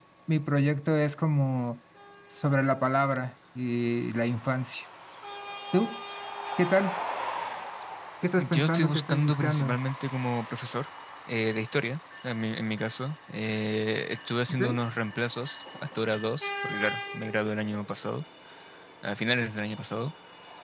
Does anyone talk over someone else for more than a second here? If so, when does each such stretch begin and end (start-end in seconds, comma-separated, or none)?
8.4-9.8